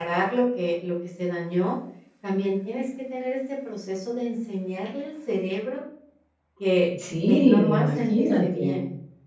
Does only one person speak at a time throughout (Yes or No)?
No